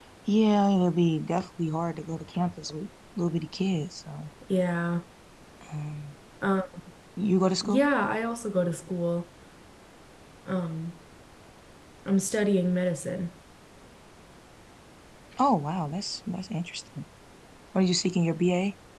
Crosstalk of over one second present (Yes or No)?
No